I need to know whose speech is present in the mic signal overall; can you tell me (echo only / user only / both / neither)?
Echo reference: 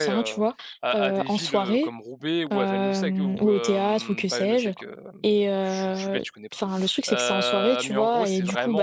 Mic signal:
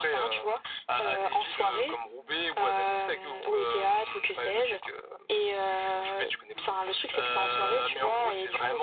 echo only